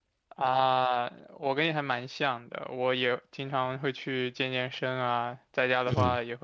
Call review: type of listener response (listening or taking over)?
listening